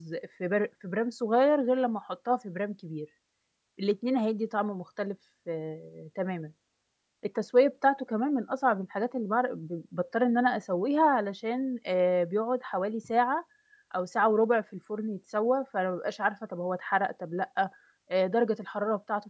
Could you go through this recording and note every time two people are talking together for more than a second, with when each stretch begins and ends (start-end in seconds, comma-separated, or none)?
none